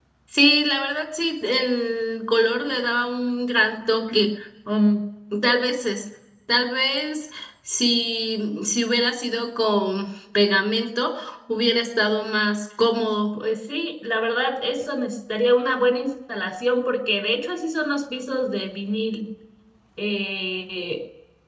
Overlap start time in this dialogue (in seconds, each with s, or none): none